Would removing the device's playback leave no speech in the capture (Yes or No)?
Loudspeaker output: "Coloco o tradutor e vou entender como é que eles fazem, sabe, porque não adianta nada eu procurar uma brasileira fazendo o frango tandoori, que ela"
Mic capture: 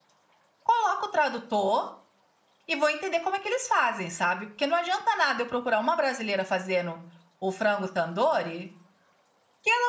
Yes